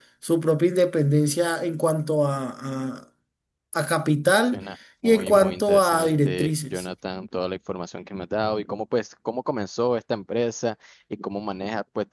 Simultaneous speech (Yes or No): Yes